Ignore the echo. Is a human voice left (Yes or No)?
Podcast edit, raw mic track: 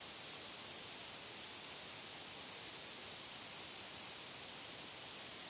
No